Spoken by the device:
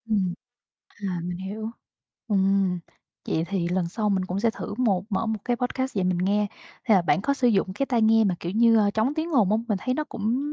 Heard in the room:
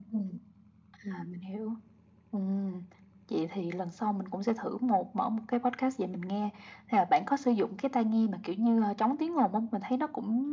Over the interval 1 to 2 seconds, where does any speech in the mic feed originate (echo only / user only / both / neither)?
echo only